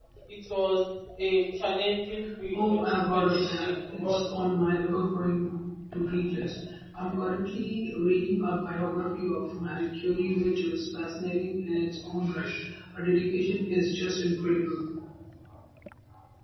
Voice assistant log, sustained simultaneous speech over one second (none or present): present